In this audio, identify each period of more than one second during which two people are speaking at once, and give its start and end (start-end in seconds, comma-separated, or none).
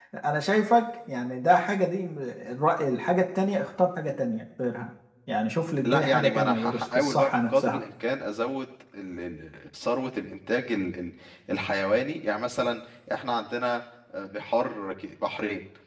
5.8-7.8